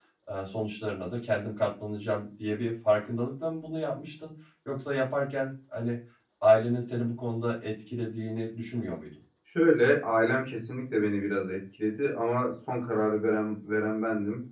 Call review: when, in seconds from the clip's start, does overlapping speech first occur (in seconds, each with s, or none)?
none